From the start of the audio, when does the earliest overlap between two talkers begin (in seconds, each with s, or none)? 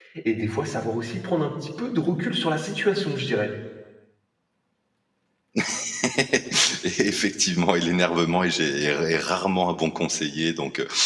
none